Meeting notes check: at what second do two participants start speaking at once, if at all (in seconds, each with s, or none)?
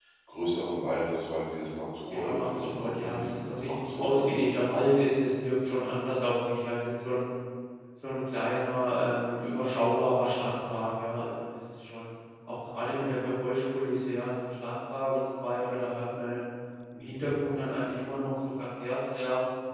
2.1 s